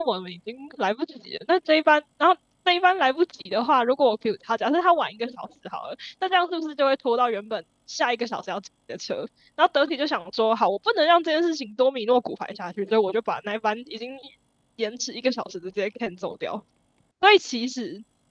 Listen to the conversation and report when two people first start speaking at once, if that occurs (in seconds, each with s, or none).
none